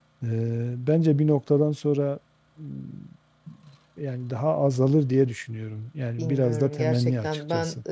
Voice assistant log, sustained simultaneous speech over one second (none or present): present